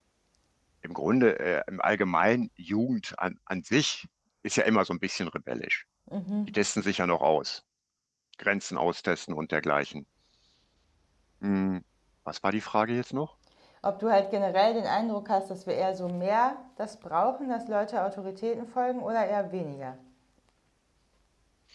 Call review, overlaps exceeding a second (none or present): none